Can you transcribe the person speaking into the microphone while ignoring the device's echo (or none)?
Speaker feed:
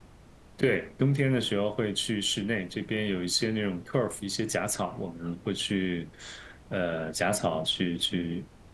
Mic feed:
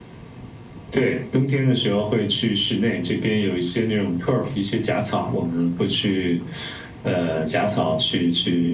none